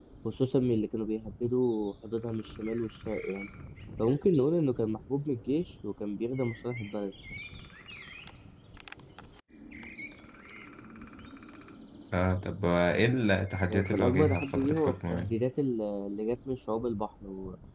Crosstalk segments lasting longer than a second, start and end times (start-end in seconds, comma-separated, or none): 13.6-15.4